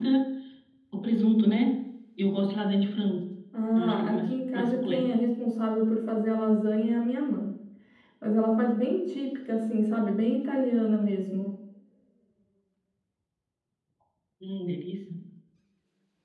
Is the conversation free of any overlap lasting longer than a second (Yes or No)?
No